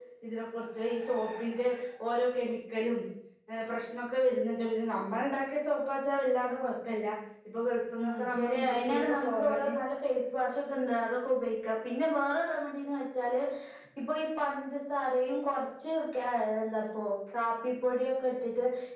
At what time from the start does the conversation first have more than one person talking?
8.0 s

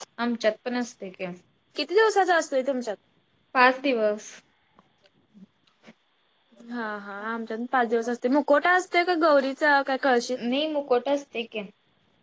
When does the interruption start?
none

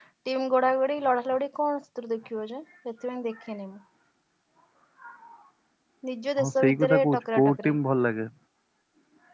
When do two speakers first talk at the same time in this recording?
6.4 s

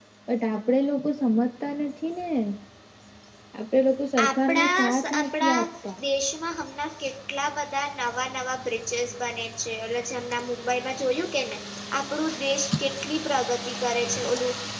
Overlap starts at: 4.2 s

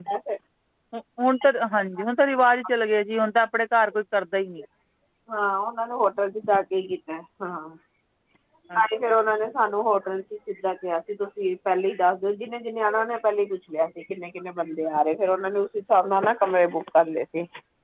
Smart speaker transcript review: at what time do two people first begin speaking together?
none

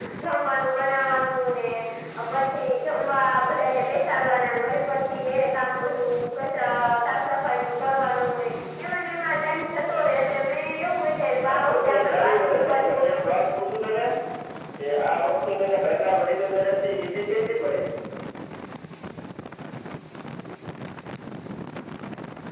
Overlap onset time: 11.5 s

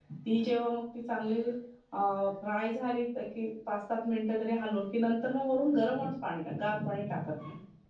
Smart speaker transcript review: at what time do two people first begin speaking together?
none

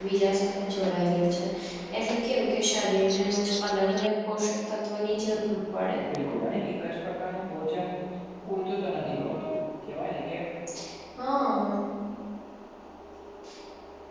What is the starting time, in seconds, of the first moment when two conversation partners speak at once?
none

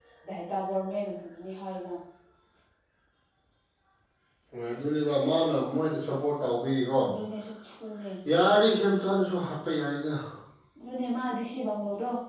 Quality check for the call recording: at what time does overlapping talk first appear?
none

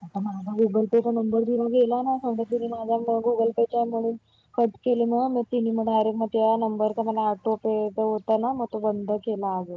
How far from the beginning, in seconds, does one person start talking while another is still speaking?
none

